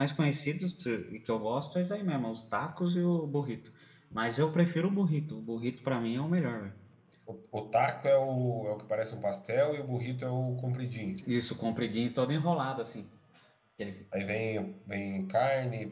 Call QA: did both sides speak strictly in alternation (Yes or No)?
Yes